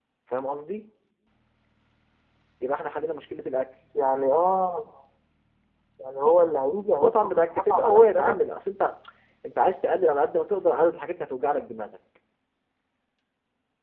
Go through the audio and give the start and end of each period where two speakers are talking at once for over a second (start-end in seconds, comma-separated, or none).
6.9-8.3